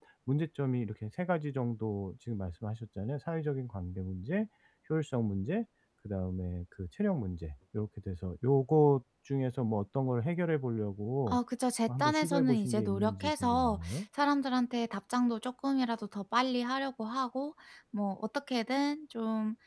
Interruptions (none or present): present